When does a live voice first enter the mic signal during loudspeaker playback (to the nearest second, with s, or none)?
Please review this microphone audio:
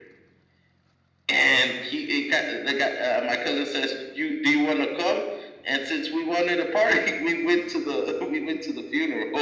none